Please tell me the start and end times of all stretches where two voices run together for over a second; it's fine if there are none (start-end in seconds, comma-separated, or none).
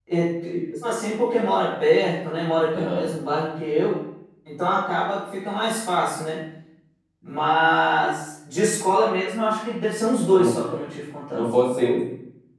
none